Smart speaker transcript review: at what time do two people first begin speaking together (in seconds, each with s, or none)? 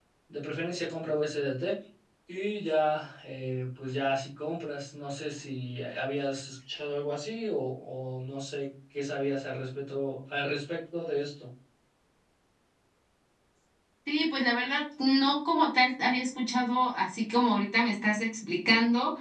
none